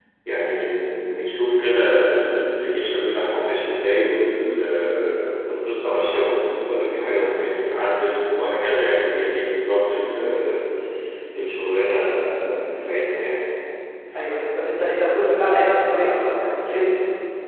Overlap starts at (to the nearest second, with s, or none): none